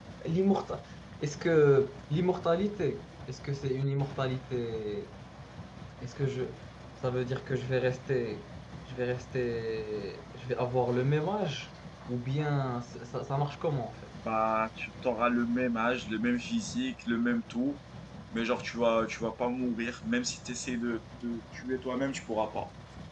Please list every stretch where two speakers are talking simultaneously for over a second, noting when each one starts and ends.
none

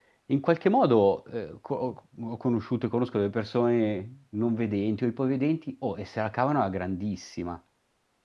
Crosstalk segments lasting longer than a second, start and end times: none

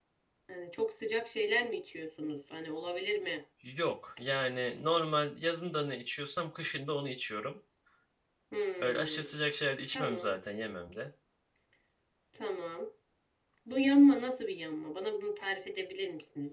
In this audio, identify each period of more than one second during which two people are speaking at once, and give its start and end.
none

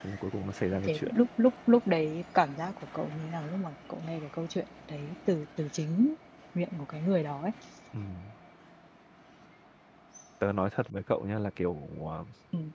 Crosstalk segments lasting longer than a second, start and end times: none

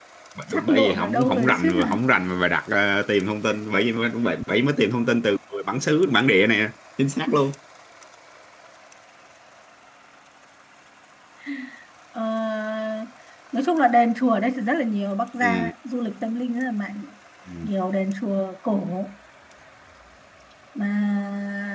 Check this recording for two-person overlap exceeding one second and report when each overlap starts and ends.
0.5-2.0

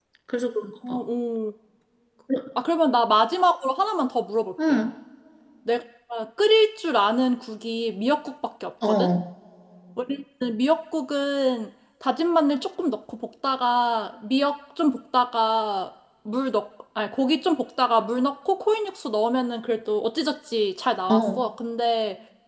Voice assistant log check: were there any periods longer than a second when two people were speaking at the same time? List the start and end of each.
none

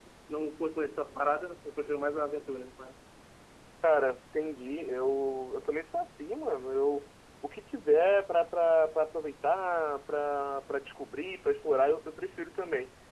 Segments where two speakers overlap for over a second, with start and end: none

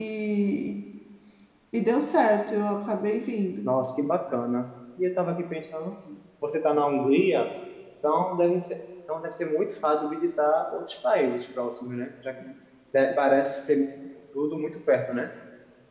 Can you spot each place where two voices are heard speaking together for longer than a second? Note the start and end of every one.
none

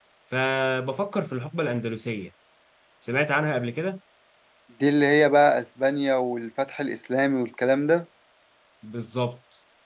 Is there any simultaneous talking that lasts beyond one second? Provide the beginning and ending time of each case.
none

